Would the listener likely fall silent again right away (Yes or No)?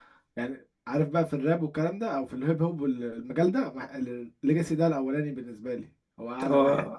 No